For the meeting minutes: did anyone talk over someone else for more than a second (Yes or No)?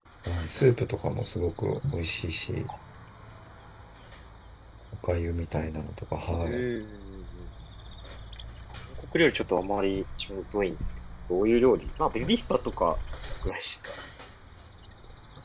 No